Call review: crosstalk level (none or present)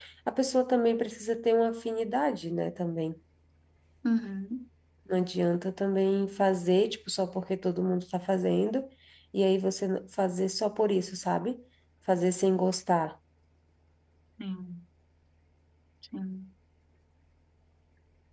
none